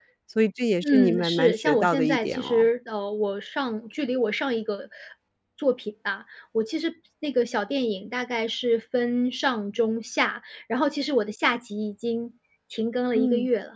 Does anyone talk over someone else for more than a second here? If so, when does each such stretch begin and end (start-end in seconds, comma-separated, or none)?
0.8-2.7